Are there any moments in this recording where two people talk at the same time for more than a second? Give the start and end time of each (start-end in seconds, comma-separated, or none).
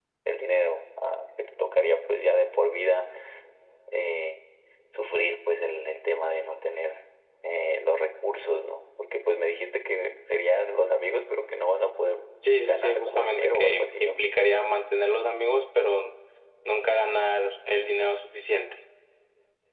12.6-14.1